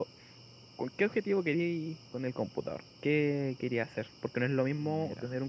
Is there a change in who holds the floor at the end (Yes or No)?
No